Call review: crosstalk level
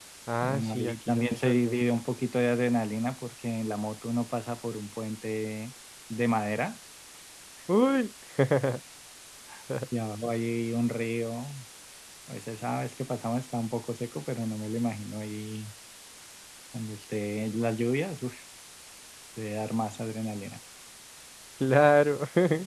present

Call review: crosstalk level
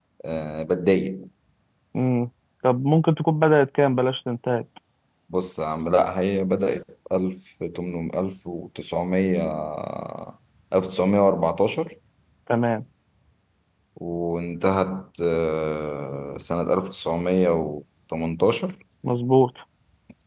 none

